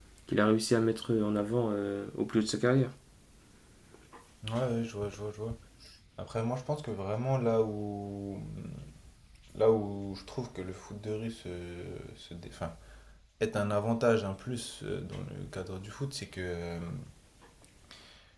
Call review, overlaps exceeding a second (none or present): none